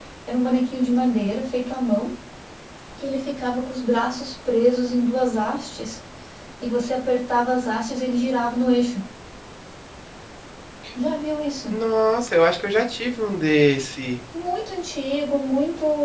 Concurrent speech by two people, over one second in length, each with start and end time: none

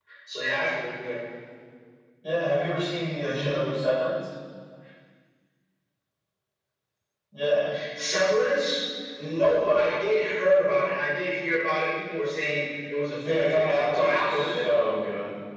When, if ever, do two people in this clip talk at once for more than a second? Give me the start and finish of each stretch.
13.2-14.6

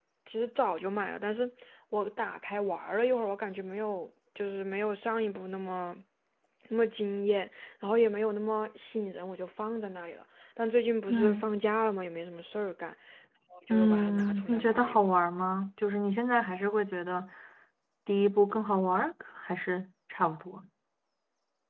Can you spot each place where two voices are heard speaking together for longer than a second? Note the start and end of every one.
13.7-15.1

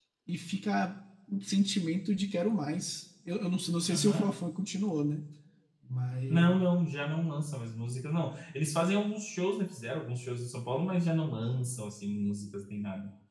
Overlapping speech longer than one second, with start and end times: none

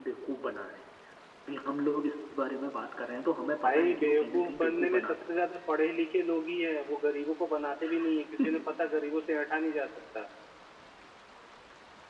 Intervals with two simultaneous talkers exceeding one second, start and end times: 3.6-5.2

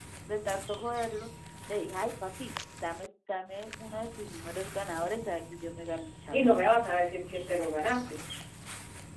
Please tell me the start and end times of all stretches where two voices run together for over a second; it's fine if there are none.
none

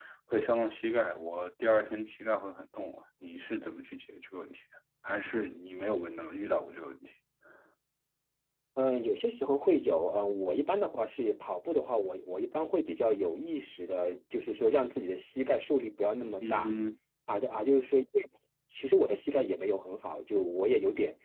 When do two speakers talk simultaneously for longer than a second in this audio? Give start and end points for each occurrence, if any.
none

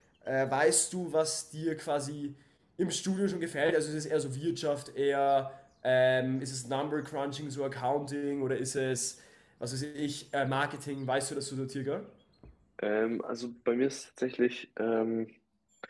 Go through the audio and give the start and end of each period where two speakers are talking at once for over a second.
none

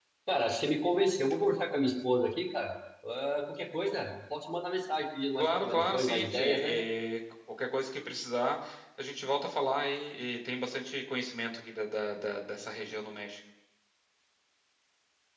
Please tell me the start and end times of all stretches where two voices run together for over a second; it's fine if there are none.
5.4-6.8

